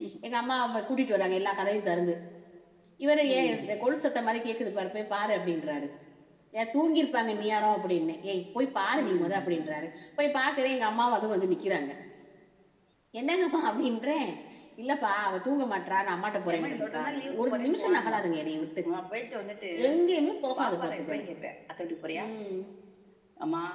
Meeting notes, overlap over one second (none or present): present